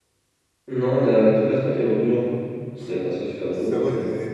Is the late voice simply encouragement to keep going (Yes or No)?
No